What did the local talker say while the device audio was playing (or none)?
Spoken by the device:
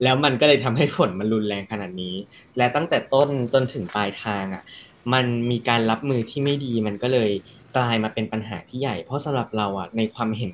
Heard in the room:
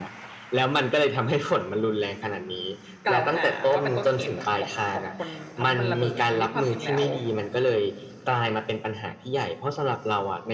กล่าวหาว่าเป็นต้นเหตุของของของคนทำให้มันระเบิดทั้งที่ความจริงแล้ว